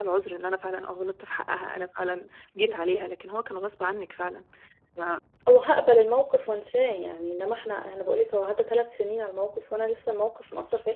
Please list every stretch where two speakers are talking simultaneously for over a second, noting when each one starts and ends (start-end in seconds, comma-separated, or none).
none